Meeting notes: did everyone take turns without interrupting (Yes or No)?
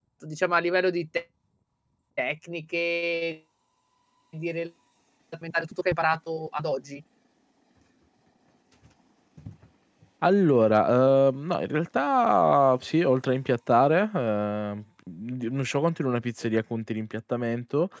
Yes